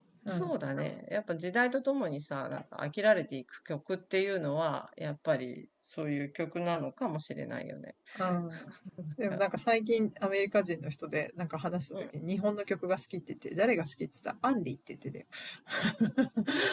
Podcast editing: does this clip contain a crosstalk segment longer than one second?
No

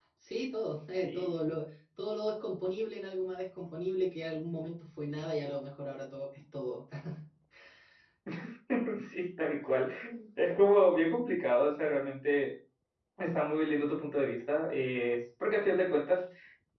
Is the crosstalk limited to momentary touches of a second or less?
Yes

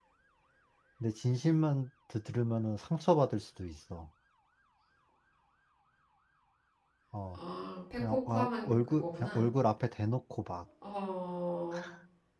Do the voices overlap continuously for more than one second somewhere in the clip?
Yes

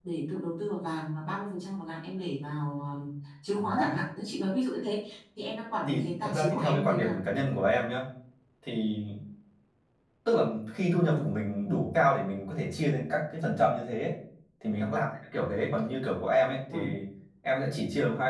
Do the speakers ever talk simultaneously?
Yes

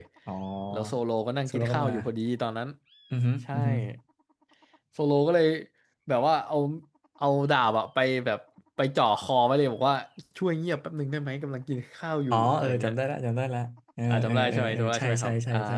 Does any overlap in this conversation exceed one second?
Yes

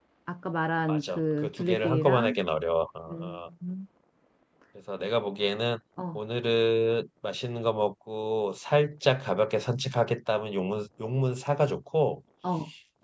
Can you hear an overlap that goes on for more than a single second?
Yes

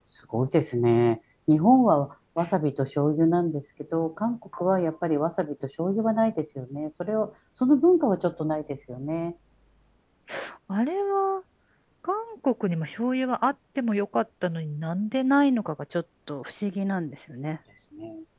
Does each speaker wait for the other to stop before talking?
Yes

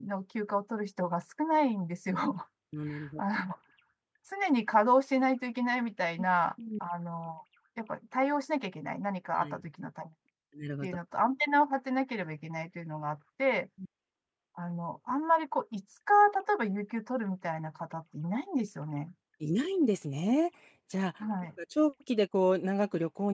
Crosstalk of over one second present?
No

